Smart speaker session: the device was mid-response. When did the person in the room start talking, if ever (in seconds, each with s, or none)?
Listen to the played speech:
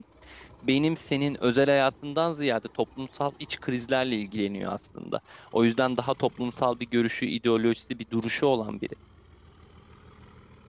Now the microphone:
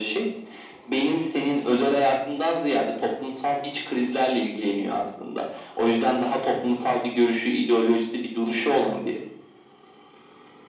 none